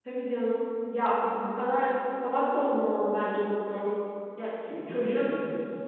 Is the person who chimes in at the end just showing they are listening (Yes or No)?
No